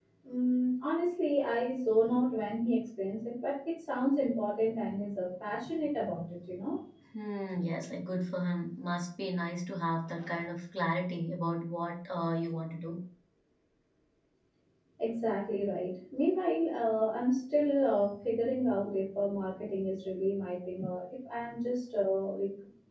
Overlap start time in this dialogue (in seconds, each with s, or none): none